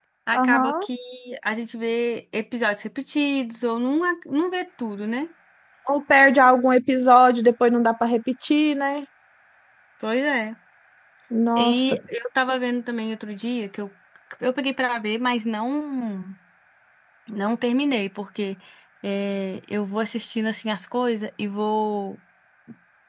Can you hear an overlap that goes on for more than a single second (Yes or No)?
No